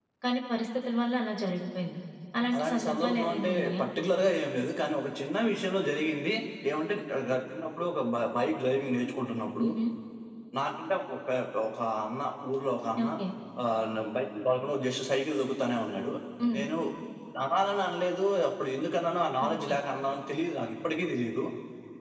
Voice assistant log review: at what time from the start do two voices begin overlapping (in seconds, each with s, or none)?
2.5 s